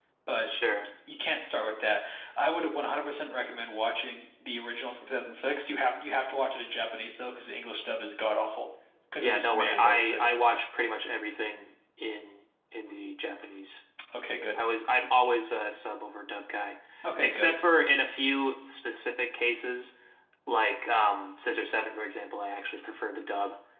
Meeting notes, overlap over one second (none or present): present